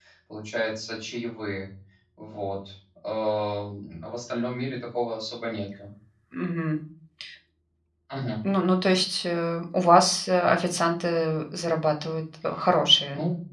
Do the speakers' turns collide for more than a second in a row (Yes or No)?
No